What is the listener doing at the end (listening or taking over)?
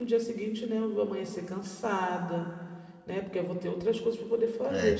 taking over